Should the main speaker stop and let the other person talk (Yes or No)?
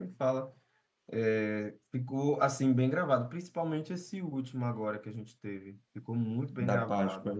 Yes